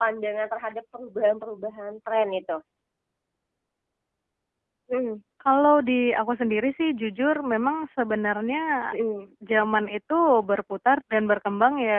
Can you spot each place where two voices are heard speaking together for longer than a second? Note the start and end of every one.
none

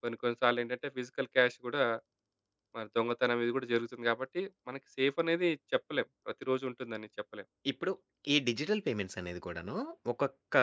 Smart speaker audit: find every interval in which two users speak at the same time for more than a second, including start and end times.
none

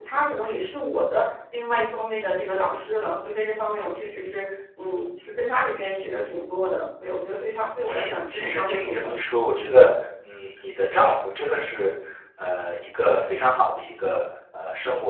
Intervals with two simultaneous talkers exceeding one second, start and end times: 7.8-9.1

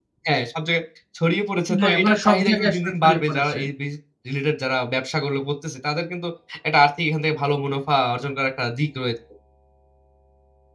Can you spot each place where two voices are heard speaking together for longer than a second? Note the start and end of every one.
1.7-3.6

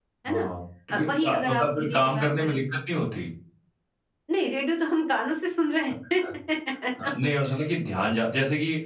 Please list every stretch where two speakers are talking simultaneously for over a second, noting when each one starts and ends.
0.9-2.6

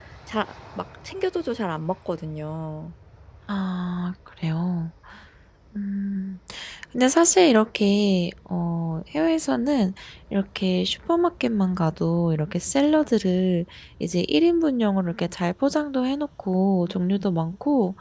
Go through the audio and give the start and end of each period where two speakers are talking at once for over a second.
none

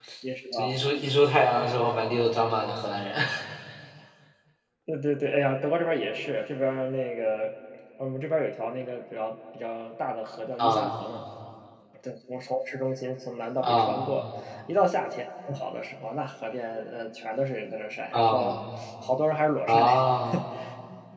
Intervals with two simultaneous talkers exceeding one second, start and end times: none

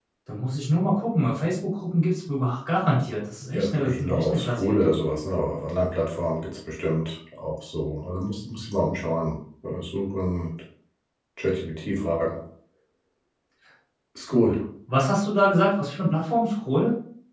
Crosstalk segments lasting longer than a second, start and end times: 3.5-5.0

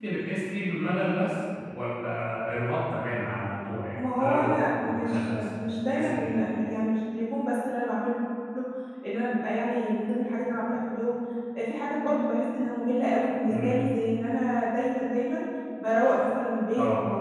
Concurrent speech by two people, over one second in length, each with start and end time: 4.1-6.3

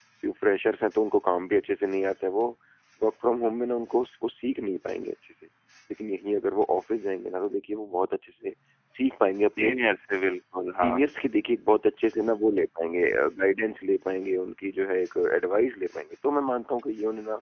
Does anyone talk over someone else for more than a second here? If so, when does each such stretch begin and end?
none

